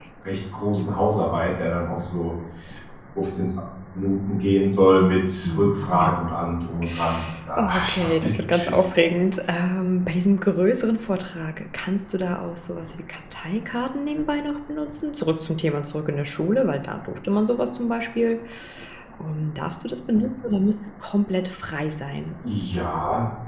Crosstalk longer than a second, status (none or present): present